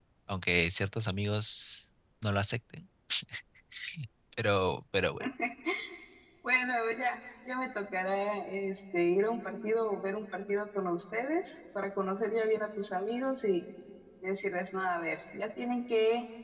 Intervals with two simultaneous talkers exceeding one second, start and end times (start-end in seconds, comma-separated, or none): none